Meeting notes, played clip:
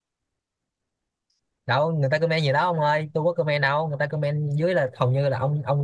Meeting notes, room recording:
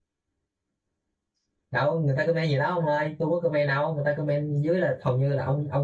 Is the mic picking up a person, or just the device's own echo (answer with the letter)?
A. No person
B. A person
A